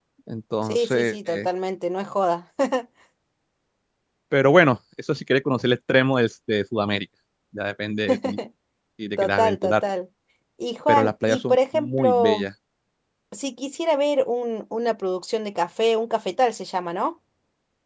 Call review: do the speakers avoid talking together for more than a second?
No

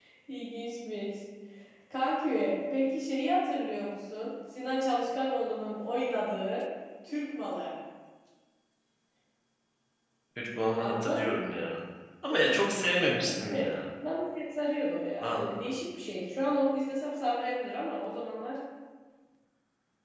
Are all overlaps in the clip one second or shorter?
No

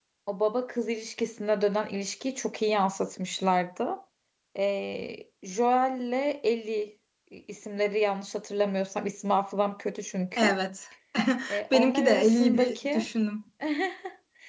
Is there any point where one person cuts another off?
Yes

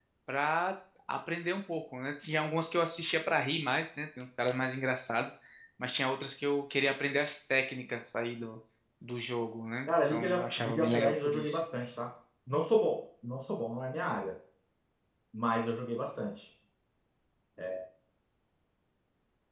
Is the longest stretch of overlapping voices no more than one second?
No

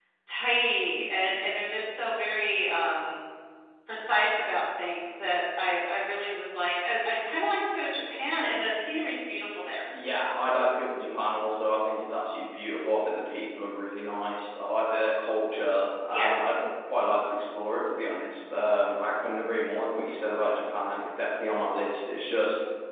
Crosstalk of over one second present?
No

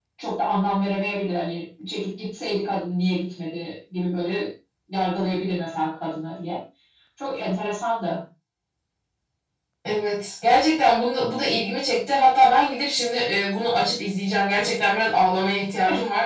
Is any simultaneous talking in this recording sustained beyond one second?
No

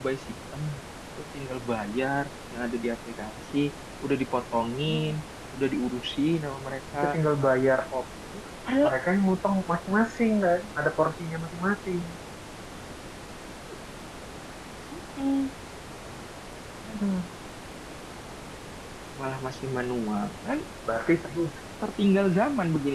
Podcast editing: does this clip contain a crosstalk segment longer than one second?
No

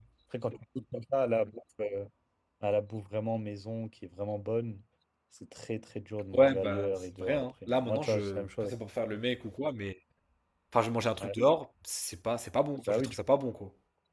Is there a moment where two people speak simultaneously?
Yes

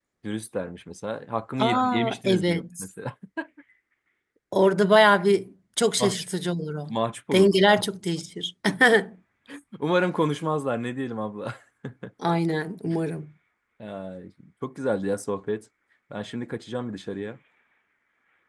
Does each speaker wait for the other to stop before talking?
No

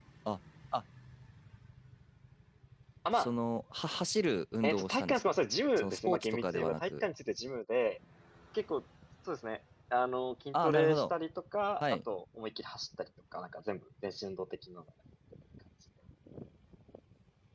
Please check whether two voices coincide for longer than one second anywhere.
Yes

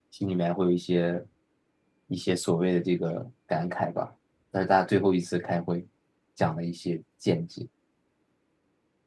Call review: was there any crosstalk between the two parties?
No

